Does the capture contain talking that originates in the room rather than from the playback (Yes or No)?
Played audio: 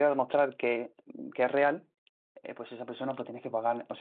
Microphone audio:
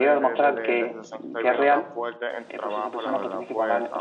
Yes